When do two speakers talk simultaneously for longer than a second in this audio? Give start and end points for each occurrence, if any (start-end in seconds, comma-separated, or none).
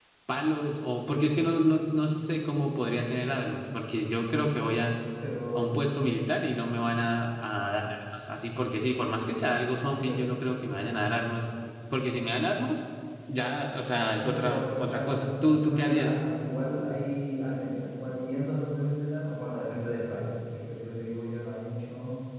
14.2-16.2